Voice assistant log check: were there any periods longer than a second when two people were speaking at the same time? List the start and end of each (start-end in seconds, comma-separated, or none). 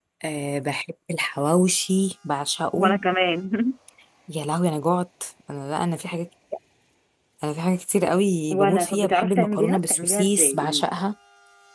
8.5-10.8